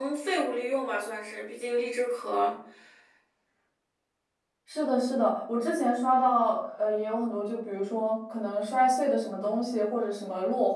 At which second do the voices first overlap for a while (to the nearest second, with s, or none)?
none